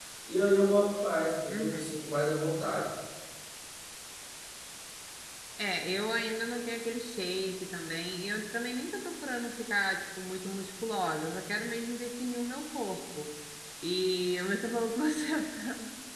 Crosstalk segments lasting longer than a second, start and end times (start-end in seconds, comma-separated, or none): none